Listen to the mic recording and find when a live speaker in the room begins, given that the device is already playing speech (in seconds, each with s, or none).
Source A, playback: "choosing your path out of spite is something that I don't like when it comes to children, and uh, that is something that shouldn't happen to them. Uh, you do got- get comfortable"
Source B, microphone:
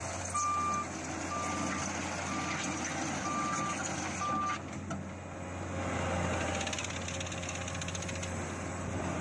none